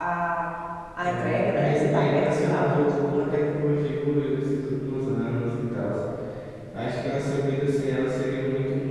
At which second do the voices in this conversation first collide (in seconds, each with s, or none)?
1.0 s